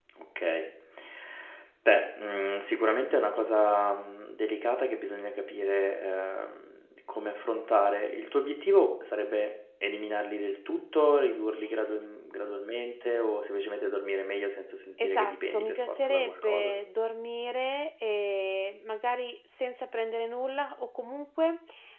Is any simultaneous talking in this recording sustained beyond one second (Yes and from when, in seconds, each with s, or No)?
Yes, from 15.0 s